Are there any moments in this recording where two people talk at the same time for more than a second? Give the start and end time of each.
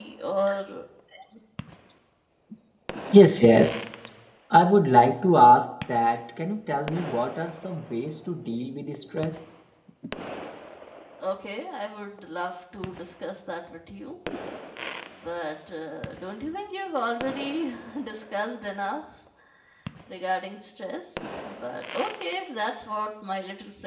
none

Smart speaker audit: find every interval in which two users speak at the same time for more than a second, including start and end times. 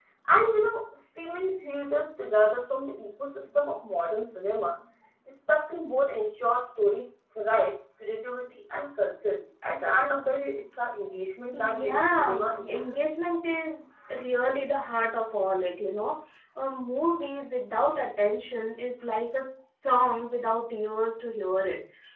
11.5-12.8

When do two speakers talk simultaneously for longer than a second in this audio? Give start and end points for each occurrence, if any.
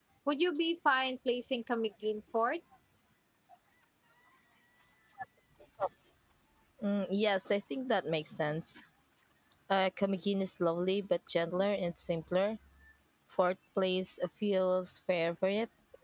none

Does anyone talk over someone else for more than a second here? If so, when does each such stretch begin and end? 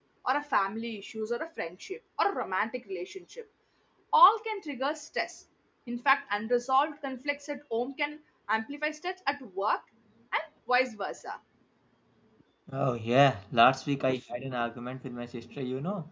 none

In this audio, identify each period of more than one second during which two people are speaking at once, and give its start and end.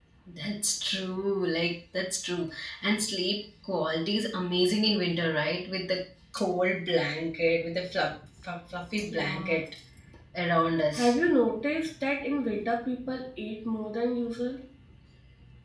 none

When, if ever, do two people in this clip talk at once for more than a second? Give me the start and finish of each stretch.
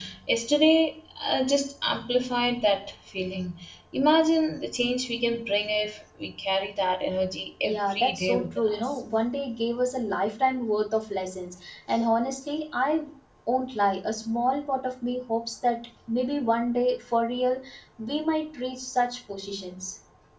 7.6-8.9

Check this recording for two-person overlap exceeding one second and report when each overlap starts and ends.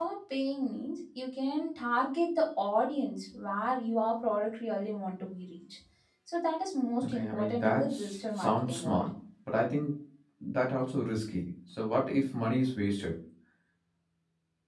7.0-9.1

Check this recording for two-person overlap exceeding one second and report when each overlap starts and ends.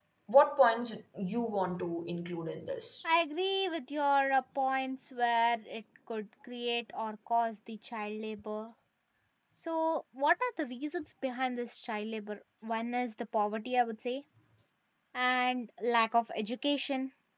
none

